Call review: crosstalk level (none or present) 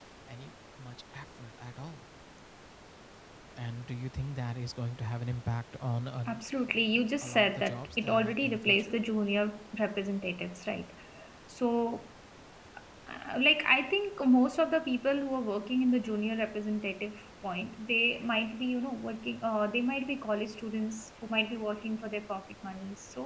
present